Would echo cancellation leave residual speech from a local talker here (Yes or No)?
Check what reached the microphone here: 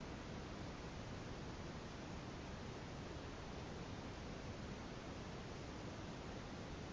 No